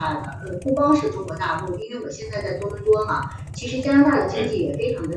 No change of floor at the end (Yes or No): Yes